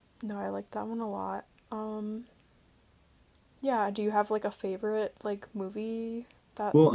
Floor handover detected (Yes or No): Yes